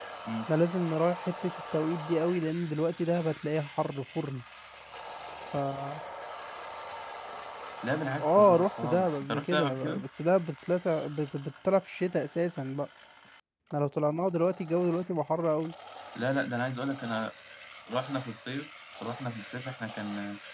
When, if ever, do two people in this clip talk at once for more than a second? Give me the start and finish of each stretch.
8.2-10.0

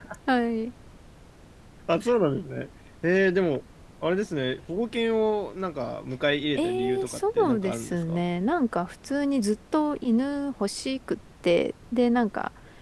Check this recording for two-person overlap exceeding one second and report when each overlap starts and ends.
6.5-8.2

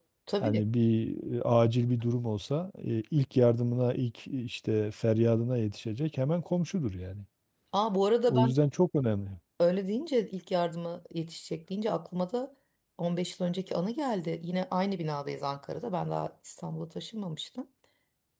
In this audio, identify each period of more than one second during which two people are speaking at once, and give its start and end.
none

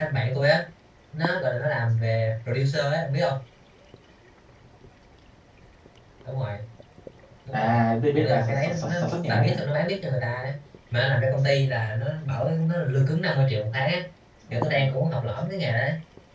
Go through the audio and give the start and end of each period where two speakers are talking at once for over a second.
8.2-9.6

